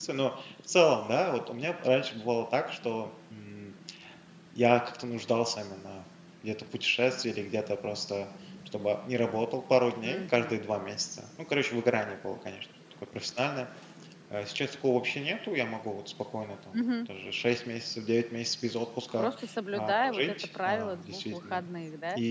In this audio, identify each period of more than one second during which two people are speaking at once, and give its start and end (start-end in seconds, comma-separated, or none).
19.7-21.6